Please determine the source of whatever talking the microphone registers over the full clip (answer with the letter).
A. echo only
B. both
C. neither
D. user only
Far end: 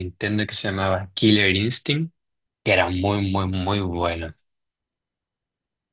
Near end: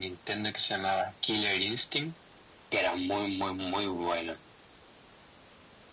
A